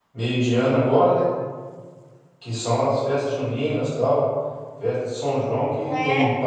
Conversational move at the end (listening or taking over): listening